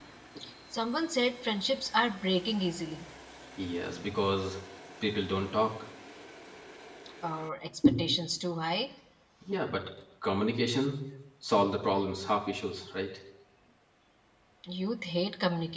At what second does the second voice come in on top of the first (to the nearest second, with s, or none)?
none